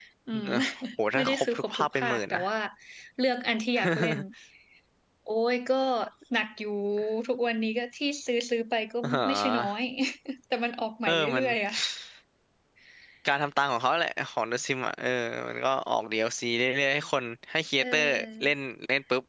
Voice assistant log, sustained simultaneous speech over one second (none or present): present